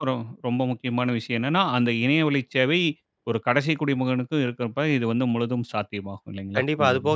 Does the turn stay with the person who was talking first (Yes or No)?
No